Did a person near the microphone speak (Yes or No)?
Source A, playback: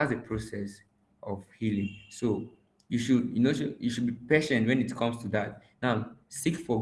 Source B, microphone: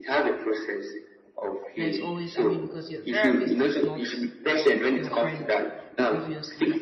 Yes